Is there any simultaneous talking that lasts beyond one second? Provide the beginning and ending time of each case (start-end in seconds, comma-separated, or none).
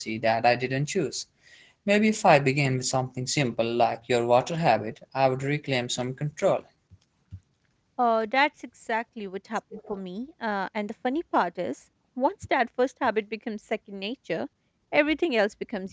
none